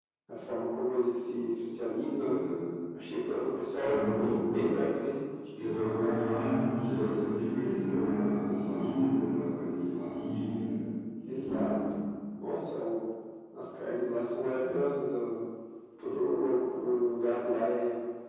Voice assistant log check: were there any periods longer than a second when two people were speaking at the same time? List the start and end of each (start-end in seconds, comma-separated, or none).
none